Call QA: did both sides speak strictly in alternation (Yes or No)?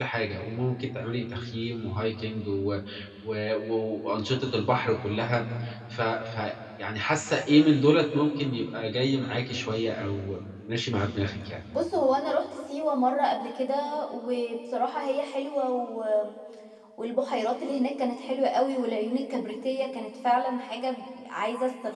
Yes